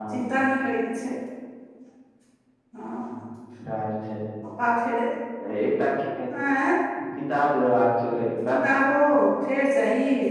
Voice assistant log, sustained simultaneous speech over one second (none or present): none